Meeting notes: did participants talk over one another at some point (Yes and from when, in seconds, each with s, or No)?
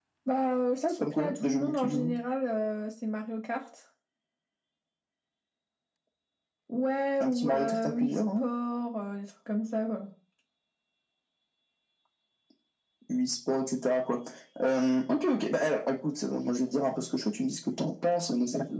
Yes, from 0.8 s